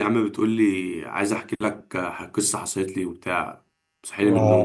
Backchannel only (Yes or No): No